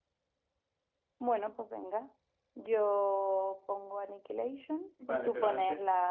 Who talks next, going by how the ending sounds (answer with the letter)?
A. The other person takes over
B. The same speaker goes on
A